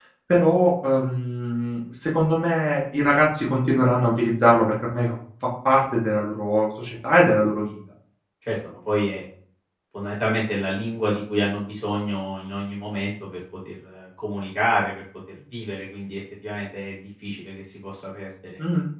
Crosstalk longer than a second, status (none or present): none